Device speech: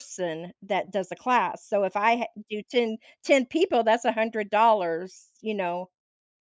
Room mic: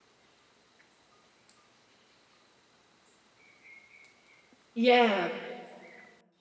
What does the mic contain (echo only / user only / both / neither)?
user only